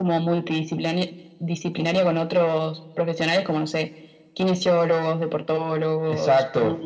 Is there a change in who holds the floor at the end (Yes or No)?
Yes